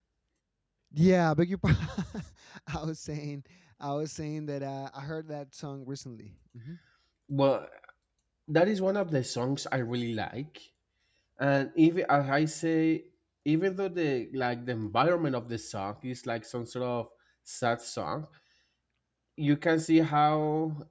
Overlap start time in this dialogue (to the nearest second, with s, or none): none